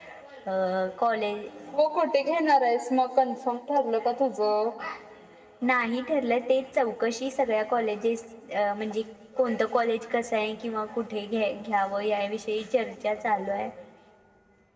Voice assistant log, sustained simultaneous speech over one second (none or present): none